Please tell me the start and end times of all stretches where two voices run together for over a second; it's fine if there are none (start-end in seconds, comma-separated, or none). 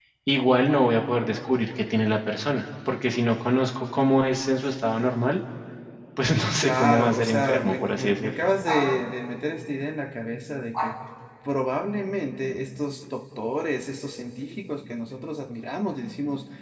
6.6-8.3